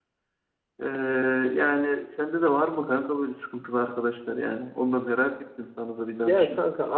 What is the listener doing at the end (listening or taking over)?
taking over